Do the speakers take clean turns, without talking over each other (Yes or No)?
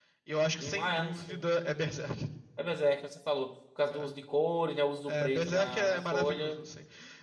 No